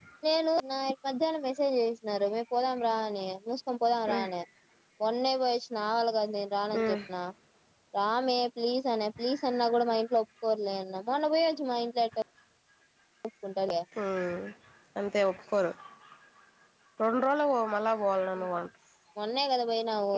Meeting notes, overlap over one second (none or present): none